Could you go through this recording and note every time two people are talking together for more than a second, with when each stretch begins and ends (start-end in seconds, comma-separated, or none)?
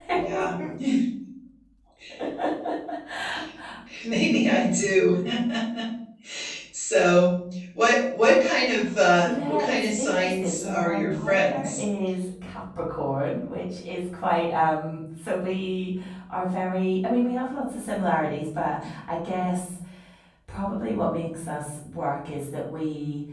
9.2-11.8